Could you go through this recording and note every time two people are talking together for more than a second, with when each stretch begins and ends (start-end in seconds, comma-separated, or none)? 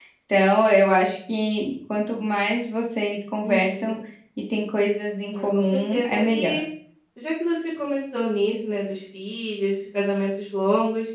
5.3-6.5